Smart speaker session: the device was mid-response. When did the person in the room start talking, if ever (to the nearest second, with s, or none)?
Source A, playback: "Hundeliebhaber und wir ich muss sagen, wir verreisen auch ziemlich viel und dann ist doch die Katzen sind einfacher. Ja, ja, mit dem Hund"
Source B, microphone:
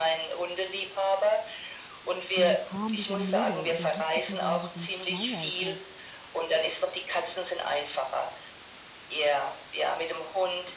2 s